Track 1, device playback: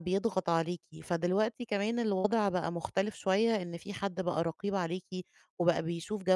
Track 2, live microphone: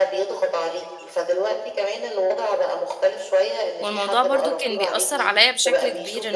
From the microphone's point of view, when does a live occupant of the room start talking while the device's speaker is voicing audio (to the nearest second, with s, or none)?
4 s